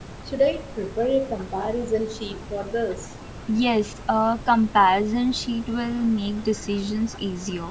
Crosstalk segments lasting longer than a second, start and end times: none

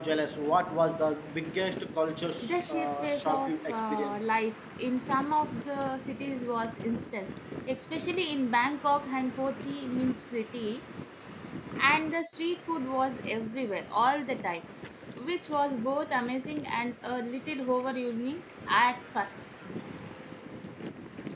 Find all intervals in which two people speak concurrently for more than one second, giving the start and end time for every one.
2.4-4.2

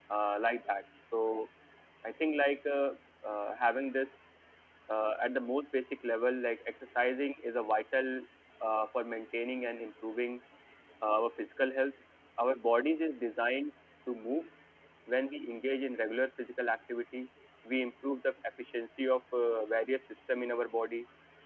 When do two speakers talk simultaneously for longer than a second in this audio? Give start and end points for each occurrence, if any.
none

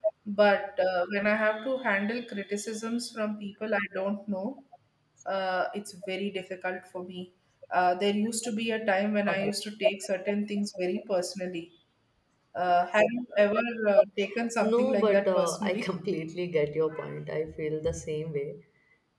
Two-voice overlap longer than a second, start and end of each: 14.6-15.9

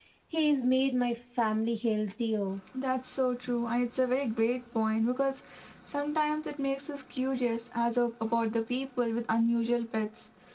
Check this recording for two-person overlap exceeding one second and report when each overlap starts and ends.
none

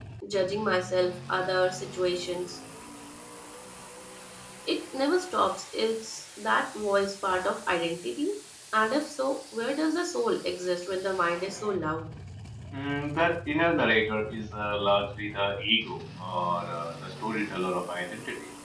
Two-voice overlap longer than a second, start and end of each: none

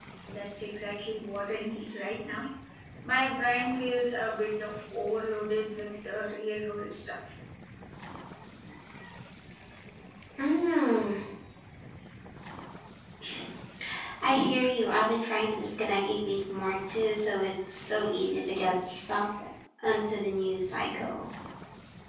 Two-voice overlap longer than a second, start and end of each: none

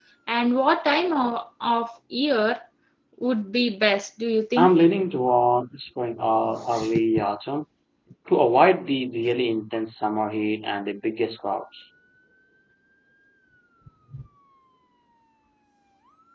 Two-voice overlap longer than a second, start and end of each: none

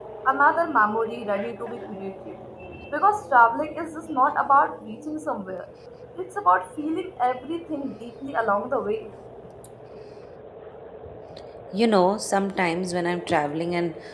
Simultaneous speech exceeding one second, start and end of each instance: none

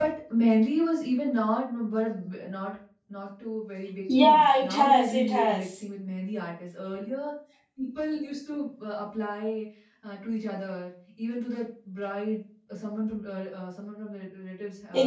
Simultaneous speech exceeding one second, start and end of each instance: 4.2-5.6

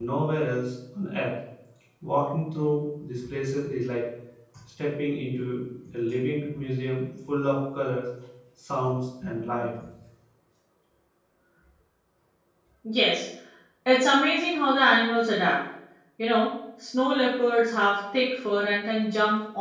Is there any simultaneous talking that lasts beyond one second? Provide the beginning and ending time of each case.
none

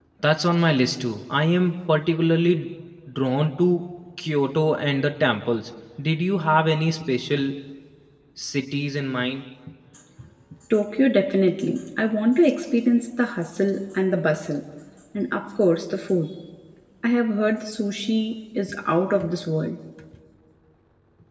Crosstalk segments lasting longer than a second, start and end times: none

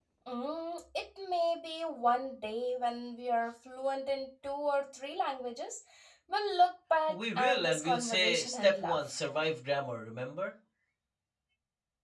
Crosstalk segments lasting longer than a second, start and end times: 7.1-9.2

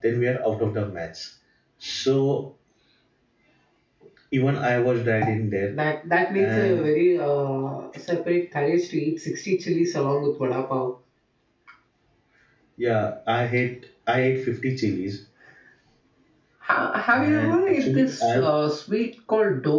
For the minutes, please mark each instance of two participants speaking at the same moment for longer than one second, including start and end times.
17.1-18.4

